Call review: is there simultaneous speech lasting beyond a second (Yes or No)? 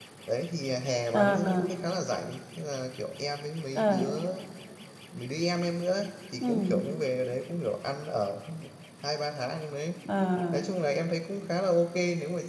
No